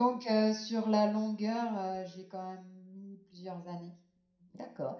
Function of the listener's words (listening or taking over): taking over